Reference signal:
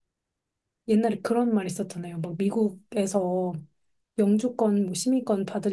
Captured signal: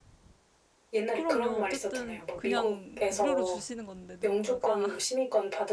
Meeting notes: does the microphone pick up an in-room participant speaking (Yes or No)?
Yes